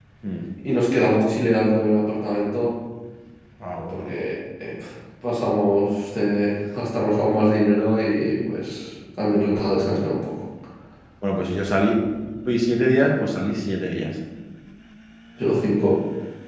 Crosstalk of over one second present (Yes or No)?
No